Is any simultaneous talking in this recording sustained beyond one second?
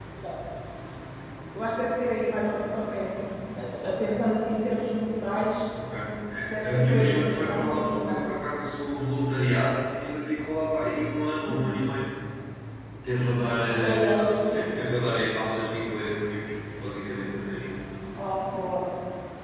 Yes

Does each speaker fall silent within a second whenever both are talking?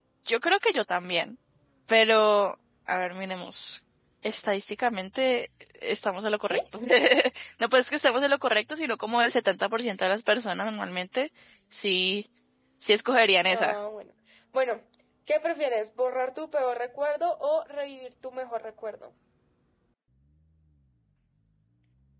Yes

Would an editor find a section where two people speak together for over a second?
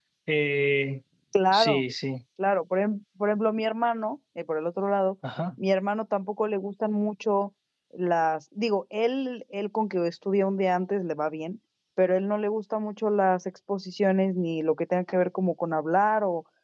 No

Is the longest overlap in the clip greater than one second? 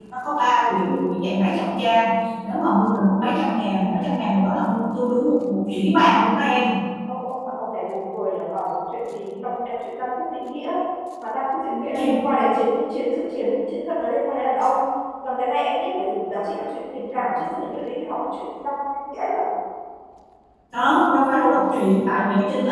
No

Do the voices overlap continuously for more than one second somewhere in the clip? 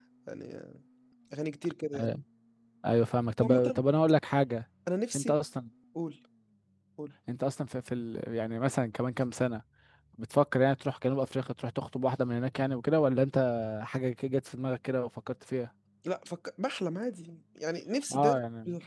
No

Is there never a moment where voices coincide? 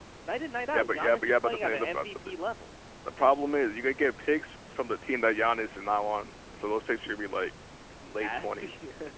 No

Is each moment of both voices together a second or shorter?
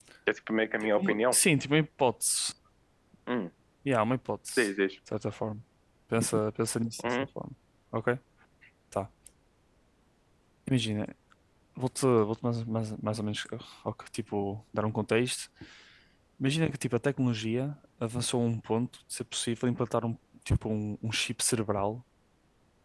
Yes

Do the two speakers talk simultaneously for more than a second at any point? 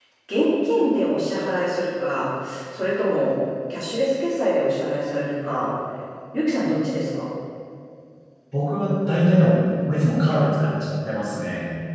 No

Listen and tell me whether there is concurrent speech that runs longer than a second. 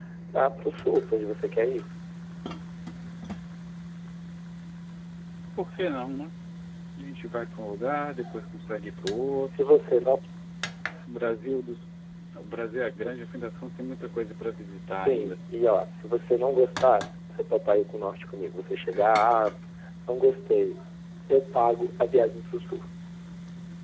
No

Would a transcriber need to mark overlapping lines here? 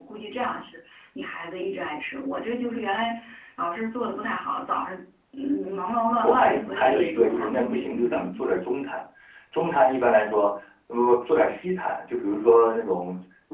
Yes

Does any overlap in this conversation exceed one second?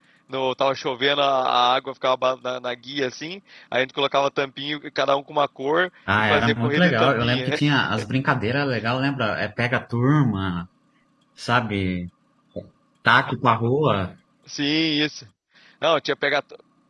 Yes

